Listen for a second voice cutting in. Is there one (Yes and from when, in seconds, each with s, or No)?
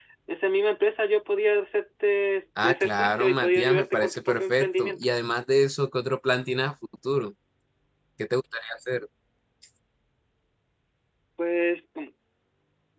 Yes, from 2.6 s